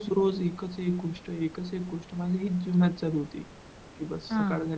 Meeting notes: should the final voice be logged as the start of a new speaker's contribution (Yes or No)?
No